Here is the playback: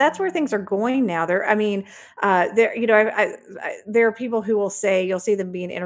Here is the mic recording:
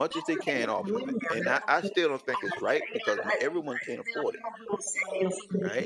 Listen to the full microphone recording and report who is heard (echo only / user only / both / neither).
both